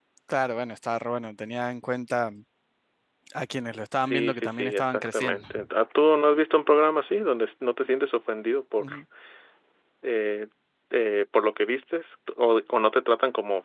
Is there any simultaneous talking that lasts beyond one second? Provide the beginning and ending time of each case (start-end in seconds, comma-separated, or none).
4.0-5.5